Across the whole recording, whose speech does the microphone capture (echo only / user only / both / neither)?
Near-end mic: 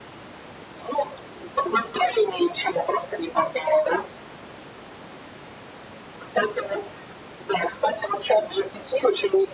echo only